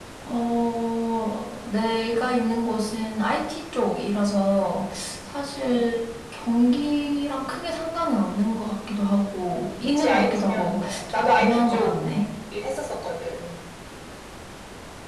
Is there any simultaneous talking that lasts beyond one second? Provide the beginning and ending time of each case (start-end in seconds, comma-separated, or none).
9.6-11.9